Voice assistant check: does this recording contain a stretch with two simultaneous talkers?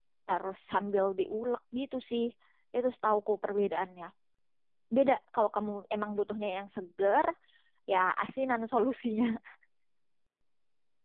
No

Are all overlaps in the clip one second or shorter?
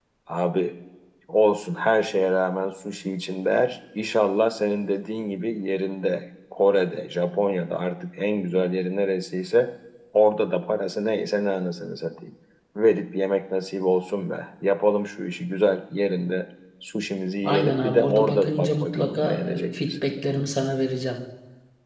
No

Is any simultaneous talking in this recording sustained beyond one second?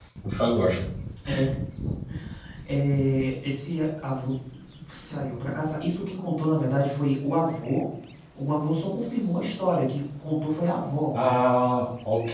No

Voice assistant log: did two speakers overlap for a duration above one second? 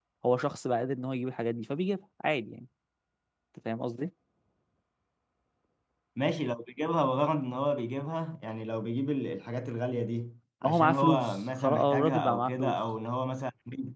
Yes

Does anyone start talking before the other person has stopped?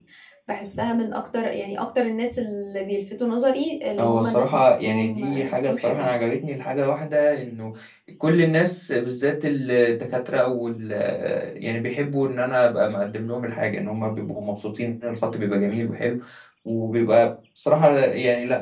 Yes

